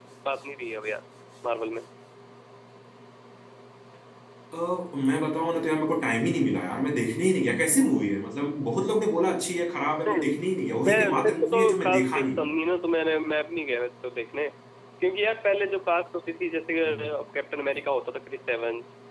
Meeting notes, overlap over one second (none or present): present